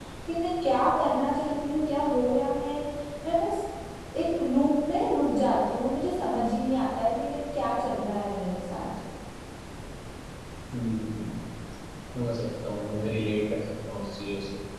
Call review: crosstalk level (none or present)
none